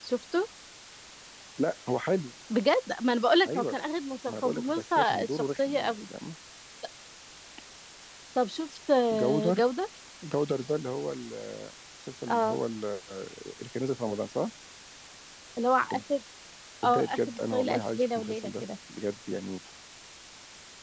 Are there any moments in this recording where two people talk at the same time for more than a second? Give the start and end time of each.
4.4-5.9, 16.8-18.6

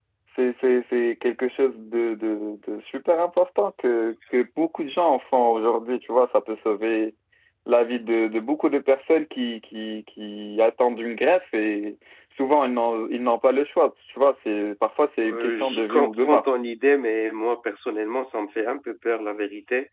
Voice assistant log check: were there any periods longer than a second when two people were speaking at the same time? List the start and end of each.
15.2-16.5

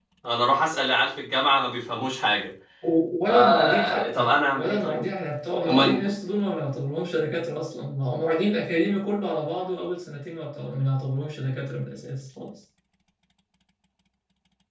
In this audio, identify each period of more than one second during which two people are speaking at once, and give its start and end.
3.3-5.0

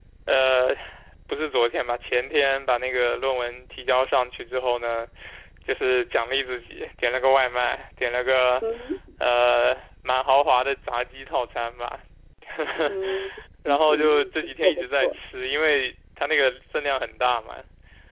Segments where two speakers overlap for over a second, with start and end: 13.9-15.2

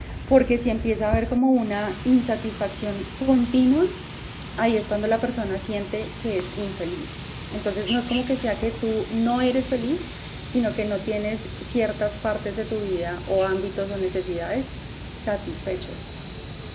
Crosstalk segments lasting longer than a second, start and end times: none

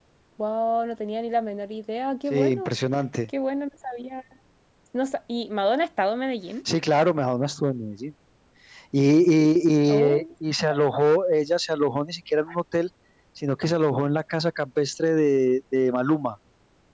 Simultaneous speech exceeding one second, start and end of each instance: none

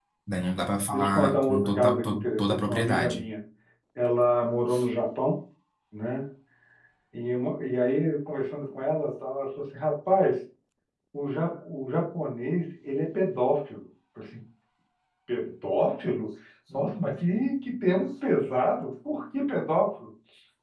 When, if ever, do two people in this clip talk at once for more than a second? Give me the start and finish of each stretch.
0.9-3.2

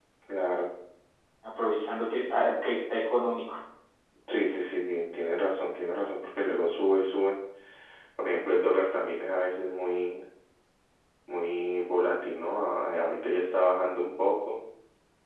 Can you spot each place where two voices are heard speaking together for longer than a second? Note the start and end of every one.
none

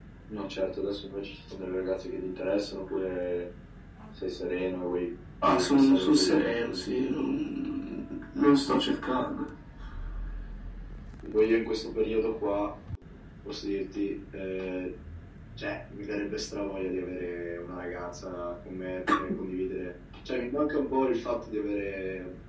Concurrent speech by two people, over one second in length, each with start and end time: 5.4-6.8

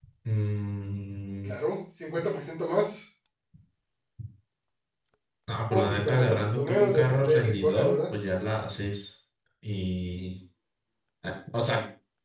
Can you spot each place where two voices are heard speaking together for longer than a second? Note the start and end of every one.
5.7-8.0

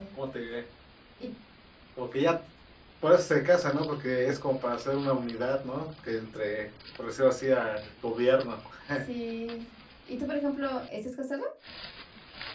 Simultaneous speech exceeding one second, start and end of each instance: none

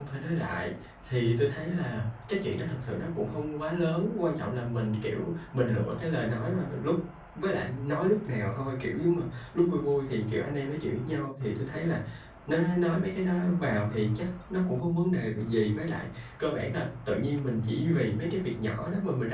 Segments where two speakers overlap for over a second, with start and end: none

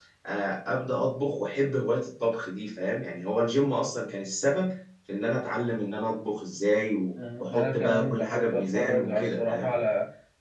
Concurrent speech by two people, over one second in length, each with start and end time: 7.4-9.7

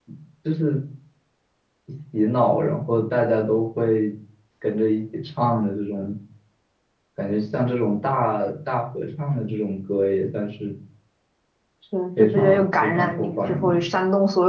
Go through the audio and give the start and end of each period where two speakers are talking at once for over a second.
12.2-13.8

